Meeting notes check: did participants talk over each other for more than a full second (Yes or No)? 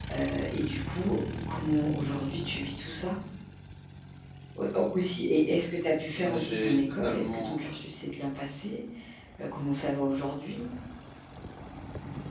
Yes